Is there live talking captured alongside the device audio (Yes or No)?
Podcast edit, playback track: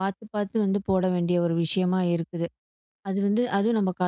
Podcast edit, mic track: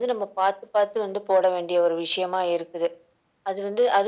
No